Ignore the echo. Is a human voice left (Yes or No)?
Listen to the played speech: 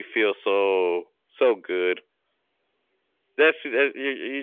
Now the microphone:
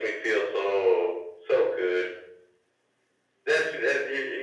No